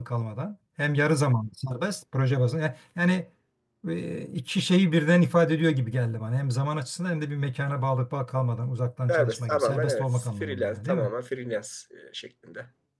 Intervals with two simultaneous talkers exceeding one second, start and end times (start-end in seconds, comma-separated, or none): 9.1-11.1